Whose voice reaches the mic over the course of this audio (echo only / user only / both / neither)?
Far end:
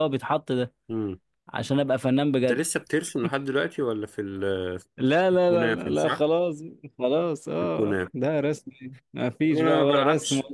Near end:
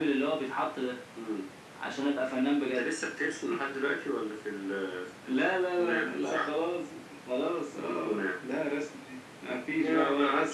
echo only